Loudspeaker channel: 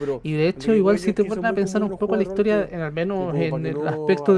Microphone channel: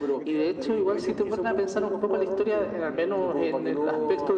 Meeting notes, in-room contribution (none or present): present